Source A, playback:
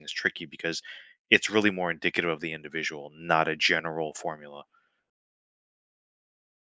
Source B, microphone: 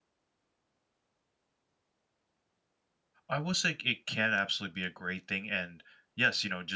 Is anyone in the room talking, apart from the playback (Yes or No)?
Yes